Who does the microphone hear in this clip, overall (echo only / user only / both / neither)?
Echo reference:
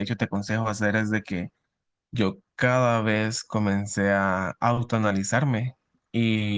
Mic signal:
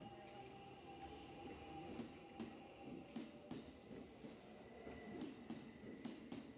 neither